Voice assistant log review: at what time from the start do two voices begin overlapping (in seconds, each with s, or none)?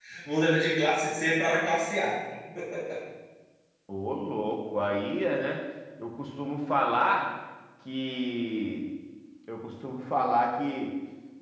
none